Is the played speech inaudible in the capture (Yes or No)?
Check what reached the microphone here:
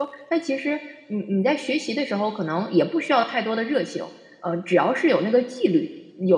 Yes